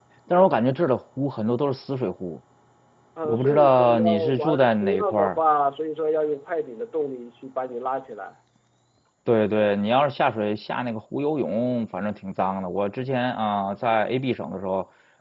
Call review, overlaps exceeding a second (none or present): present